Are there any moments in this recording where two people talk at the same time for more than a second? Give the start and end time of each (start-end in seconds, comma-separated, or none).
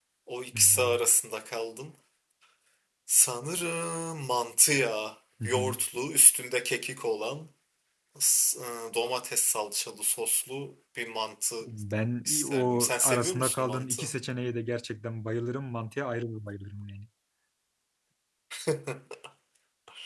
12.3-14.0